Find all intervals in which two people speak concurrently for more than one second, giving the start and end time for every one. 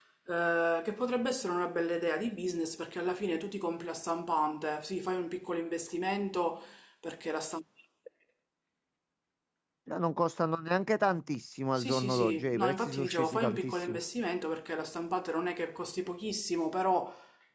11.8-14.0

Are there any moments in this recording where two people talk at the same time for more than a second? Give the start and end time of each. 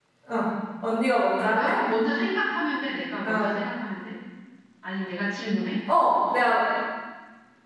none

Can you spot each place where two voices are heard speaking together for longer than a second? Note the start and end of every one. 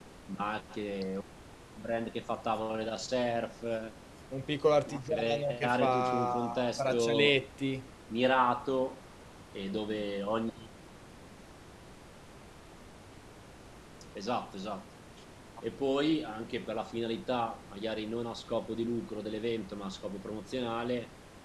5.1-7.3

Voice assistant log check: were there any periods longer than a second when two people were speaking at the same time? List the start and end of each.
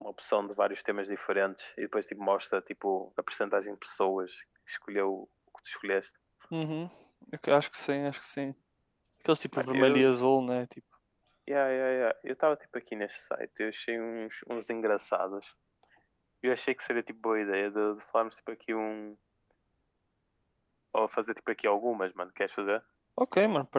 none

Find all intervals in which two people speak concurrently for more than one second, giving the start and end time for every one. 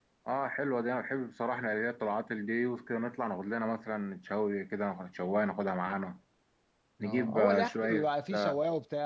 7.0-8.6

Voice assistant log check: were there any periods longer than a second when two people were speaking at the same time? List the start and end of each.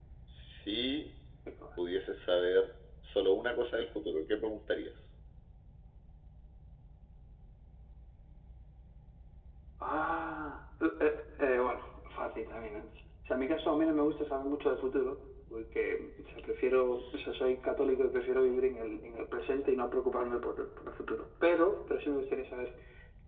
none

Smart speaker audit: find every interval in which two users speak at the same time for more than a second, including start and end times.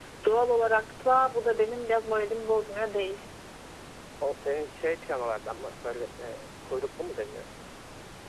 none

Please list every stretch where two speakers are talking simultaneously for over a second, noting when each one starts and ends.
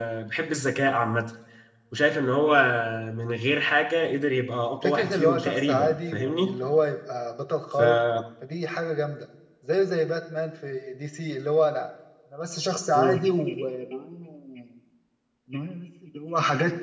4.8-6.6

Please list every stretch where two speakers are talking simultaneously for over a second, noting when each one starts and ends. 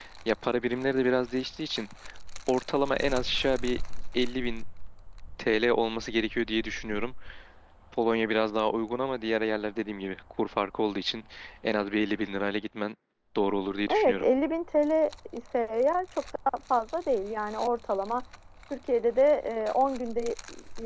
none

